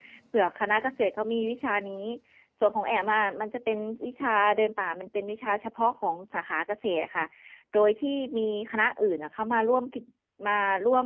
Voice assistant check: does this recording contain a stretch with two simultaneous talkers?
No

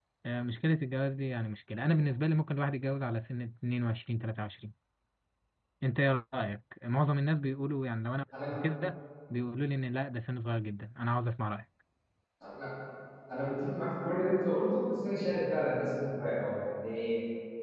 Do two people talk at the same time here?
No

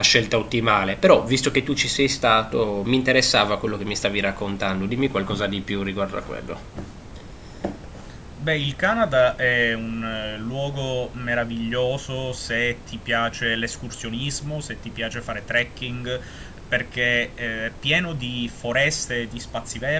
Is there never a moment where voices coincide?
Yes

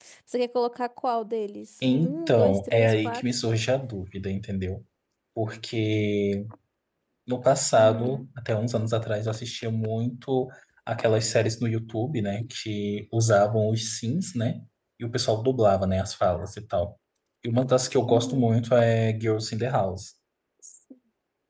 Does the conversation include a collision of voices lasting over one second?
Yes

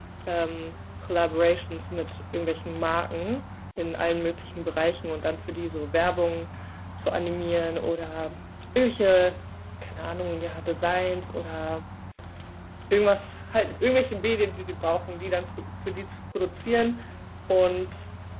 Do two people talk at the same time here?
No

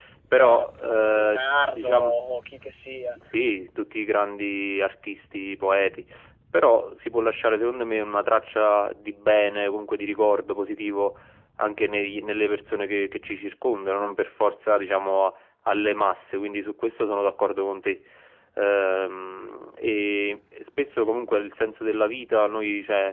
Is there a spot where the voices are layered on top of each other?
Yes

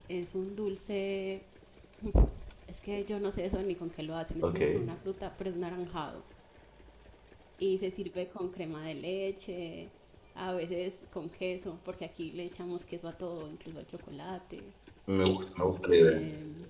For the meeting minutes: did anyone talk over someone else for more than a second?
No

